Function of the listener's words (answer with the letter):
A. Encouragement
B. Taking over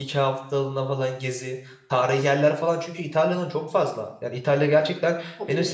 A